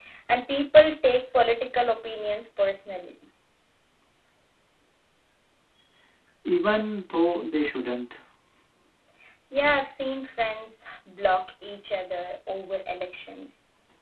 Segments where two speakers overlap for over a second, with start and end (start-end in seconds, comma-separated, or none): none